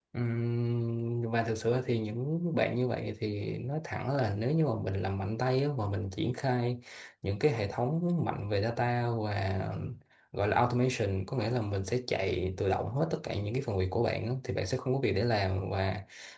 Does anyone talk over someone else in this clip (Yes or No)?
No